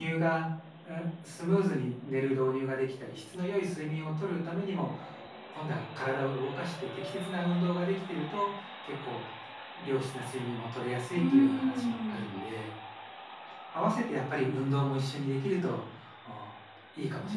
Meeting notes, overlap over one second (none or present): present